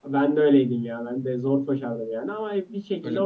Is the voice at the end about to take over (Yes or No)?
No